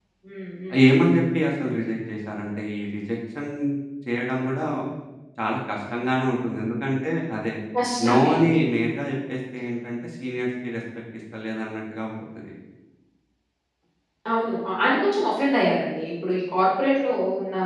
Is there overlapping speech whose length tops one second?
No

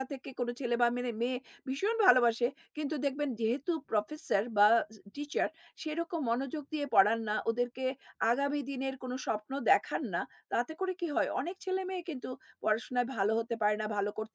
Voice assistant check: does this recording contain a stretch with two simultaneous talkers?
No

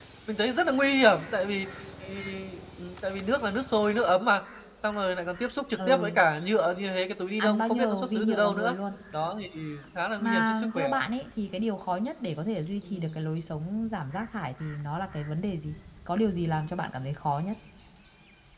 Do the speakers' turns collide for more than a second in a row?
Yes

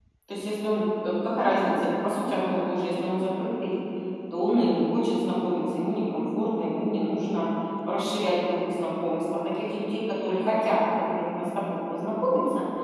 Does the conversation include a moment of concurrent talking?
No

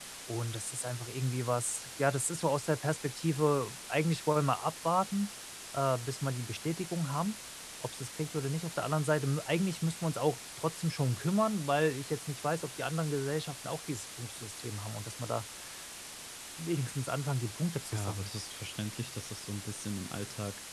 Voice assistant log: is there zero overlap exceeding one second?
Yes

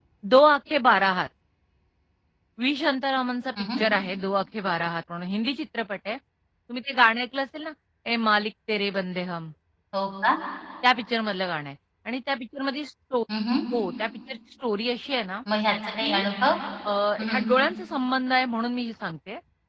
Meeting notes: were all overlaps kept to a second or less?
Yes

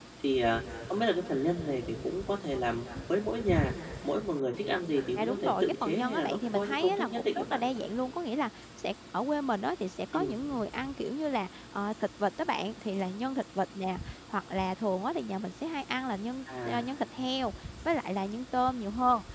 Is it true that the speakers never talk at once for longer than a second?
No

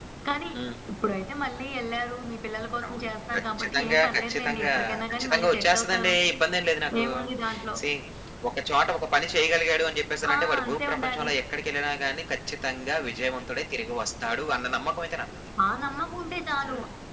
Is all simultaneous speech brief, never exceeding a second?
No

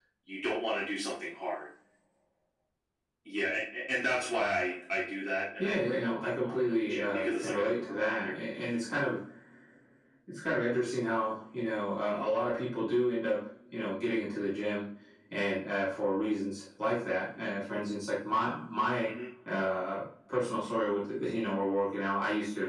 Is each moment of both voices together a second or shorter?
No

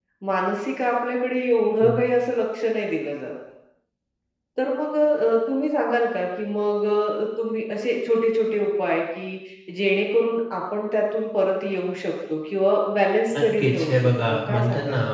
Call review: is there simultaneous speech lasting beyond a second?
Yes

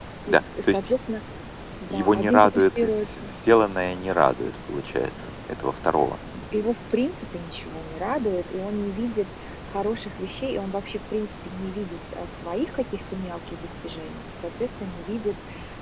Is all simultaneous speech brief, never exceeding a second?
No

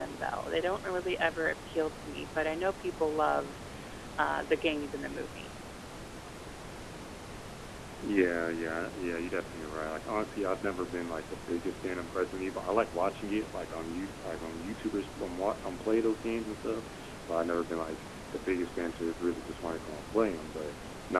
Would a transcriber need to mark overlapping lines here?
No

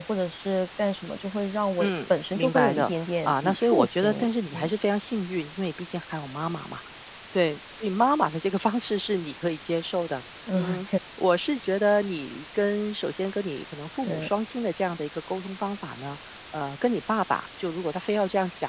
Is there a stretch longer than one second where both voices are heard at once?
Yes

